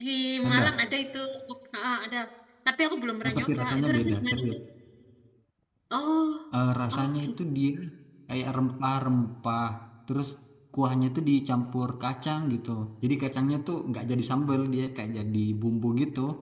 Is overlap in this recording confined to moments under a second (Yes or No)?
No